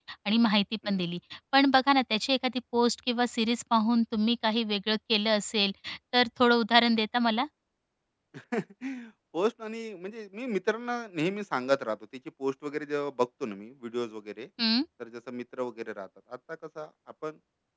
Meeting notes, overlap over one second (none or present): none